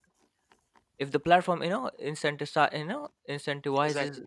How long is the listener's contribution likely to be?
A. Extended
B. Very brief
B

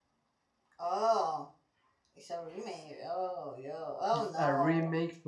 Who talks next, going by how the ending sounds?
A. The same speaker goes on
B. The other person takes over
B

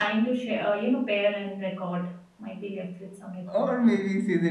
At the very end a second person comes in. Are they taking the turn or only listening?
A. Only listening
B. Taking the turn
B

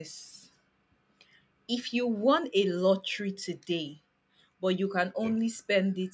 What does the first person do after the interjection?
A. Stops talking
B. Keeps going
B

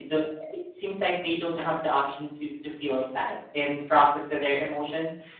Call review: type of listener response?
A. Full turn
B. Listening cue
B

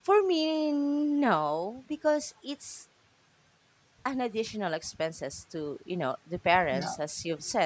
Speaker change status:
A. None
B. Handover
A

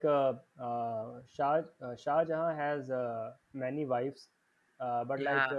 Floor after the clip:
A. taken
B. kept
B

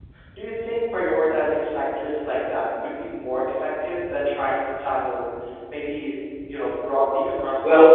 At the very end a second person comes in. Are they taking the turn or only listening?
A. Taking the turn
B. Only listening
A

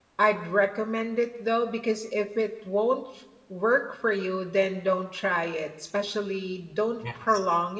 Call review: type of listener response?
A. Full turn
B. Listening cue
B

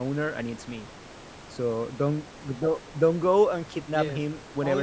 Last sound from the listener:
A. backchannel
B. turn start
B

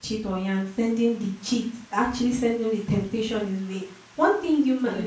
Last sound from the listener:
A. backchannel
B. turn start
A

